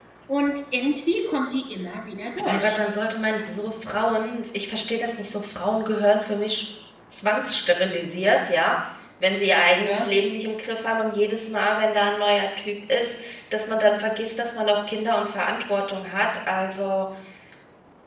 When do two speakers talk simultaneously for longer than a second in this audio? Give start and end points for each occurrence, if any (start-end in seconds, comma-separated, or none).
none